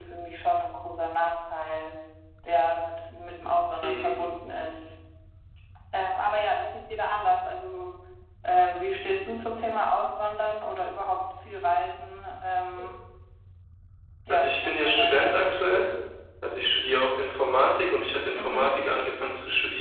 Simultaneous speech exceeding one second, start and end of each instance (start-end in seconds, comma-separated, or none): 14.3-15.8